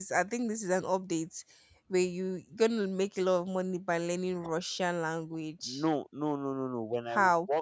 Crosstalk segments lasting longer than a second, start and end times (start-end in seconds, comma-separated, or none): none